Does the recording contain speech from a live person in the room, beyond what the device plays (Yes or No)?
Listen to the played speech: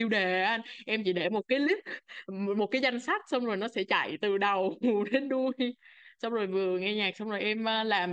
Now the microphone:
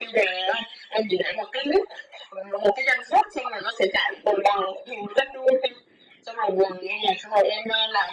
No